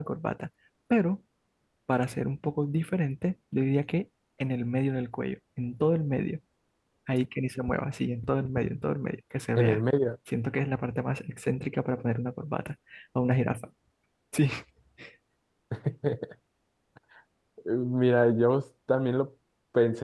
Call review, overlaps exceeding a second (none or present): none